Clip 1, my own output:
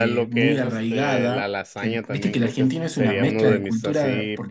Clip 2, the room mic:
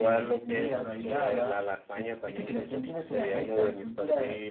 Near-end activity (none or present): none